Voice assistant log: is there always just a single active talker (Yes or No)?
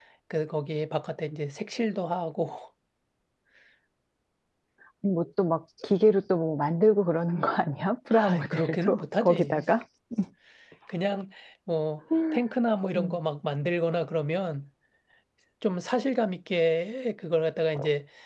No